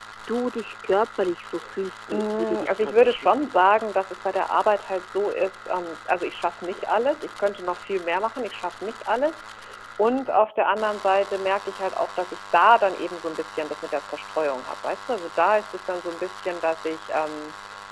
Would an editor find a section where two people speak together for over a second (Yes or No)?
Yes